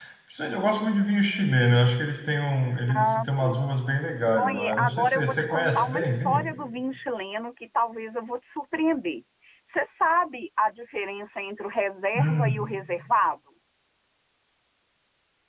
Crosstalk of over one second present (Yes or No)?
Yes